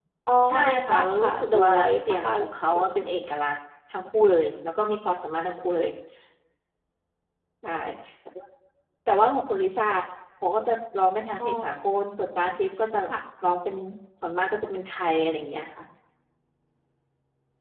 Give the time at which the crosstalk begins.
0.7 s

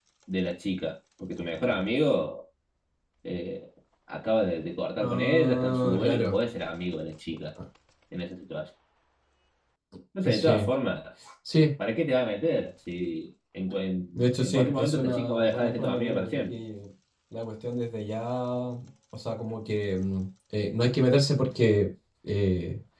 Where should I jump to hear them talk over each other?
5.0 s

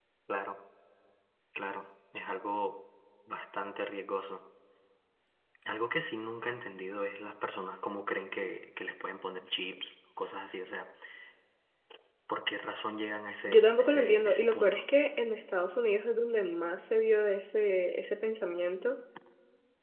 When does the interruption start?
13.5 s

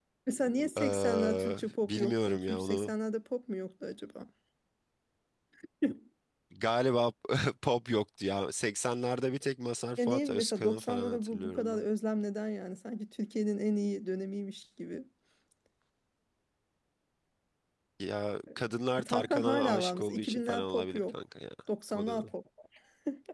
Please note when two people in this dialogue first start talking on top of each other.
0.8 s

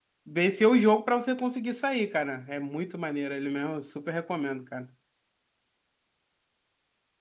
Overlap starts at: none

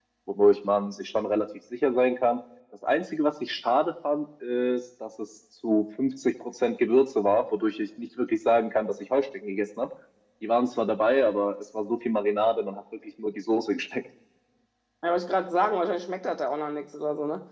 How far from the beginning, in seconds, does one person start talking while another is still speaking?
none

